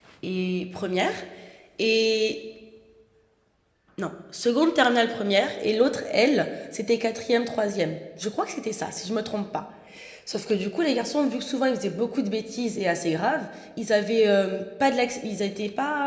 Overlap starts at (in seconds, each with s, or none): none